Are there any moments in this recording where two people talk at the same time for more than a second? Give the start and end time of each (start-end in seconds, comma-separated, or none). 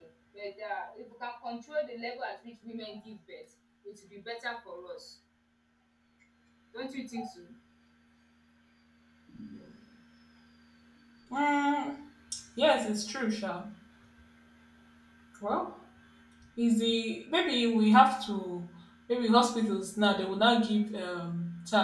none